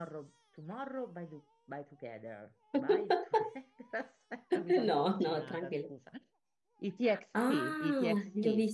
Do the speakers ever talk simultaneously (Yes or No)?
Yes